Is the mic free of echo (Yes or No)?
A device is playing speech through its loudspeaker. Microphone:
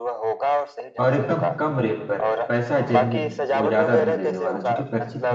No